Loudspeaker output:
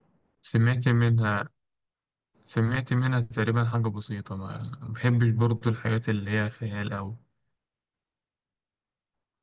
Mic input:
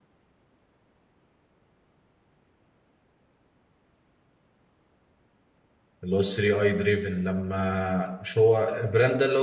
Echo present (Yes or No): No